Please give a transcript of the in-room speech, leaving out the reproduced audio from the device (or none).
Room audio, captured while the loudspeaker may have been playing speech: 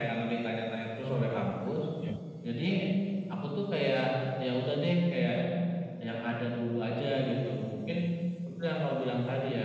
Oh, iya iya iya.